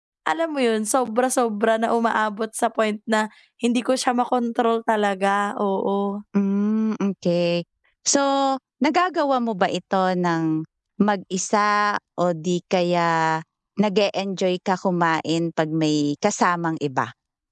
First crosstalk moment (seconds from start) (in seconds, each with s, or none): none